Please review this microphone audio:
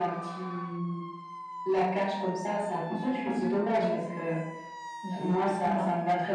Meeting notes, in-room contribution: none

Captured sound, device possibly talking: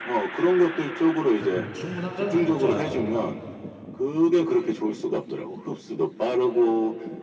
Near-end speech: present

